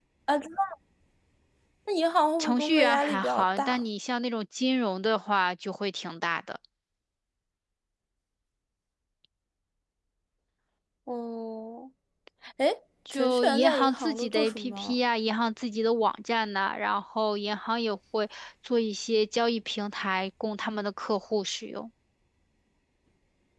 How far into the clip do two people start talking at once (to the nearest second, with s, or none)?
2 s